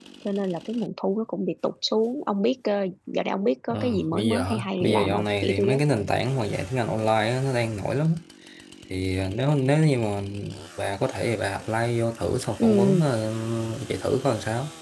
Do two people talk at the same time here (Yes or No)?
Yes